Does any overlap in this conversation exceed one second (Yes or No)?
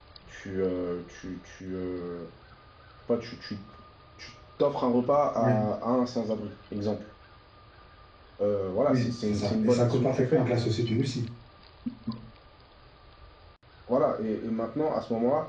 Yes